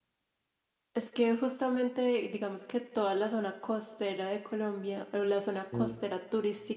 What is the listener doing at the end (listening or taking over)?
listening